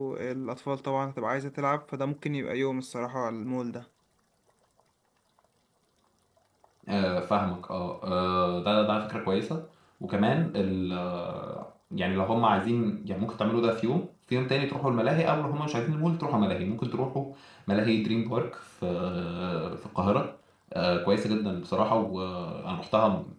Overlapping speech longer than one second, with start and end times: none

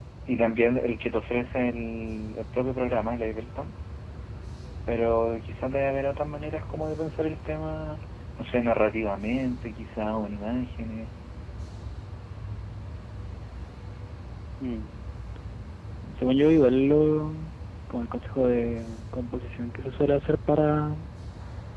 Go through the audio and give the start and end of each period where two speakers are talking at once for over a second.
none

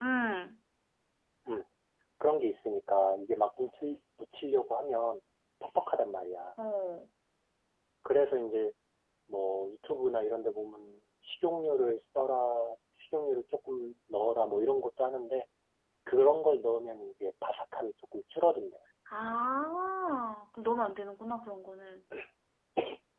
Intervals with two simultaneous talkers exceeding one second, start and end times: none

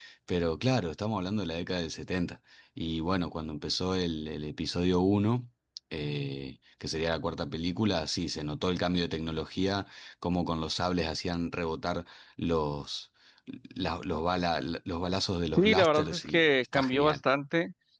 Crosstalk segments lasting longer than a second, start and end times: 15.6-17.2

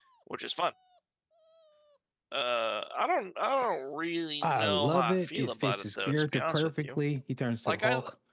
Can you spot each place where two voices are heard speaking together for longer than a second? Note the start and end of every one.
4.4-7.0

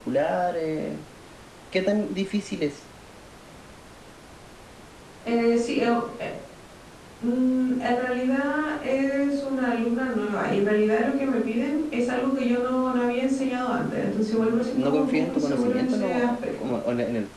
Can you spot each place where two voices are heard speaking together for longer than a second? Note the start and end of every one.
14.4-16.6

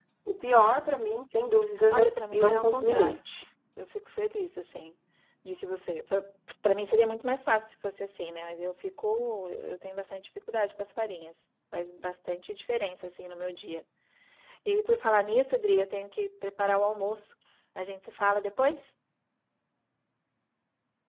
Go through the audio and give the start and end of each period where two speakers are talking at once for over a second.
1.9-3.2

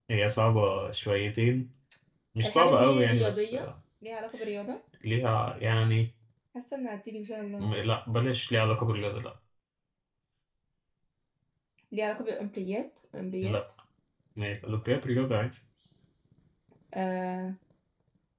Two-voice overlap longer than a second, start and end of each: 2.4-3.7

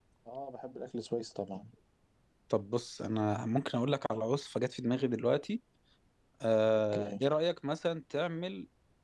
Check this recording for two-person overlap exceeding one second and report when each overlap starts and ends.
none

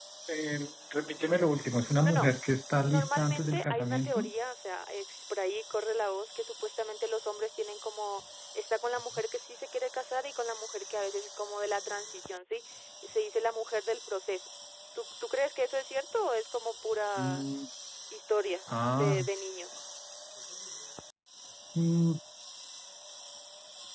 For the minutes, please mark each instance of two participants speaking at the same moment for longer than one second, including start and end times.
2.9-4.2

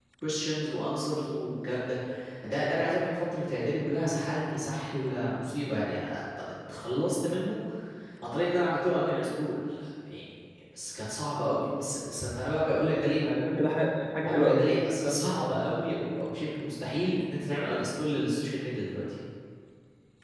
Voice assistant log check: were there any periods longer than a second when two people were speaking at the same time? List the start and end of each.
none

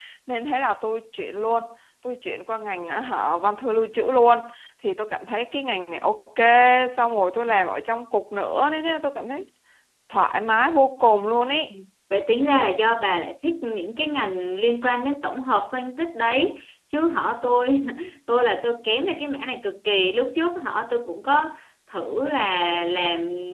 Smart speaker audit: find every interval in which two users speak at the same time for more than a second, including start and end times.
none

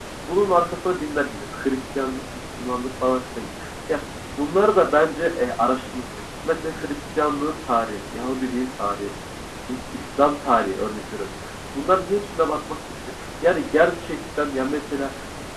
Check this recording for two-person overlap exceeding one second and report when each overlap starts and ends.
none

